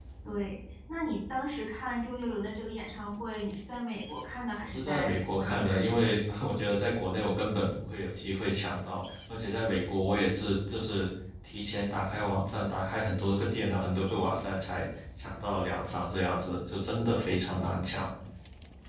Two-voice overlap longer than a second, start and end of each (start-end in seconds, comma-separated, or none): 4.6-6.1